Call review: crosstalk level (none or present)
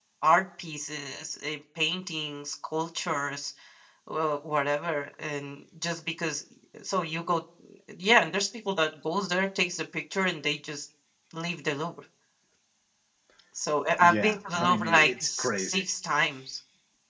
present